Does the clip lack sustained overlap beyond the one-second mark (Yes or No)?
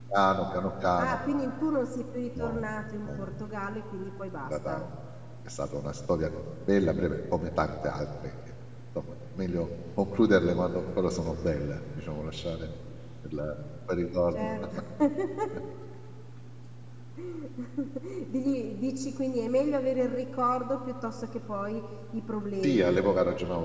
Yes